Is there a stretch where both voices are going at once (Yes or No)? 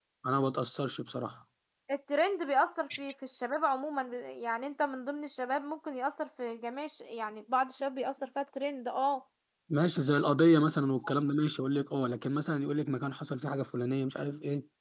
No